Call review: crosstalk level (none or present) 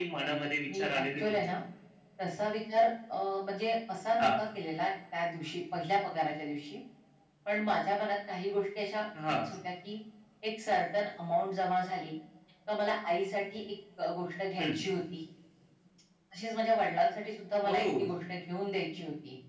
present